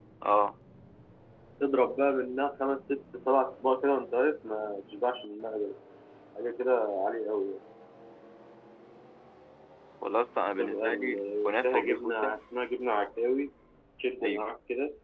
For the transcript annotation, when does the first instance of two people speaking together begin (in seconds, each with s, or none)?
10.6 s